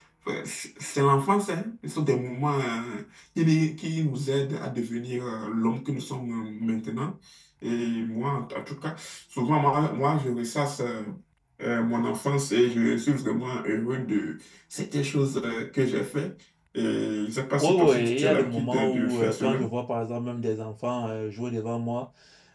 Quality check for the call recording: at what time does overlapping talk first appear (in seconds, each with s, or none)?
17.6 s